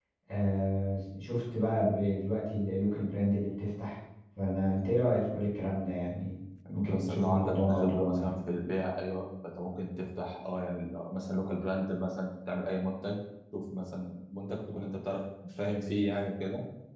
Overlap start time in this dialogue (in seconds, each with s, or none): 6.7 s